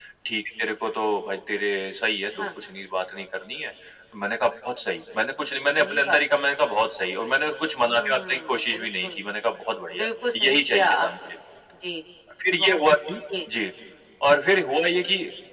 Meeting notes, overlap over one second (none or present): present